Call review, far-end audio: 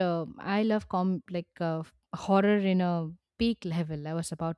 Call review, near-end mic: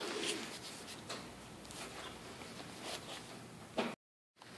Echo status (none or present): none